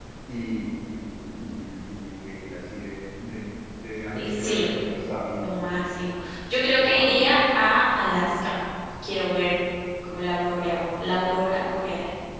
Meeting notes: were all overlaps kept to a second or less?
Yes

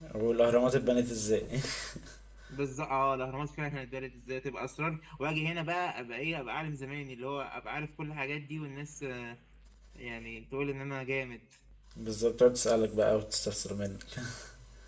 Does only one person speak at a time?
Yes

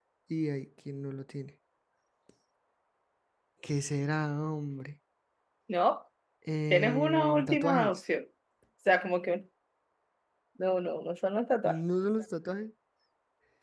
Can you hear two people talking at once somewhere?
Yes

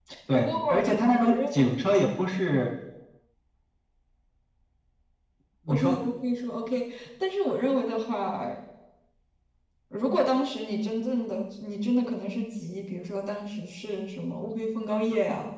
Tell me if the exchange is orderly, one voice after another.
No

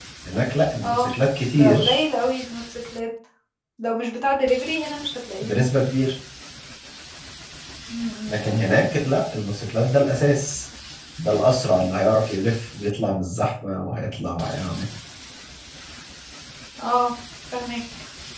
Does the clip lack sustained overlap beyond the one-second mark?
Yes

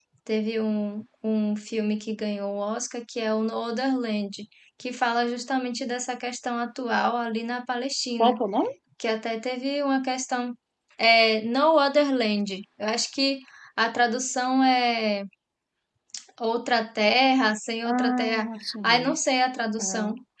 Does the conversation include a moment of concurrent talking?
Yes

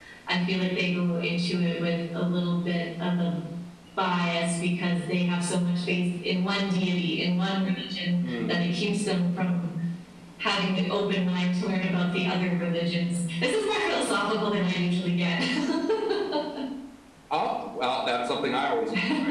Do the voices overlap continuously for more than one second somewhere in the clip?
No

